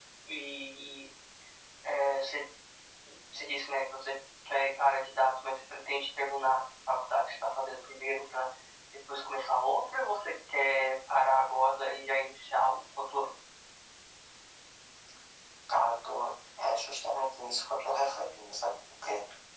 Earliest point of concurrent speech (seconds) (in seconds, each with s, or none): none